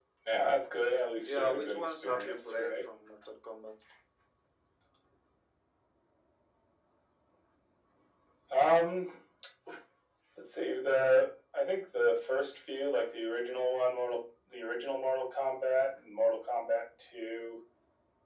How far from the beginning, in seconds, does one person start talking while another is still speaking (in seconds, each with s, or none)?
1.2 s